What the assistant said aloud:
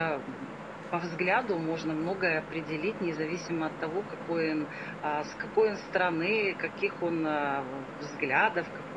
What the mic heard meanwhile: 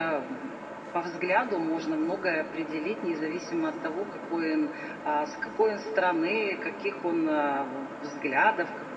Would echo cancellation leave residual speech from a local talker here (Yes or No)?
No